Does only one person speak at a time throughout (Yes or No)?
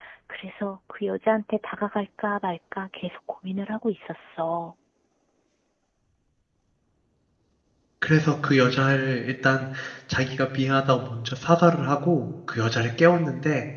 Yes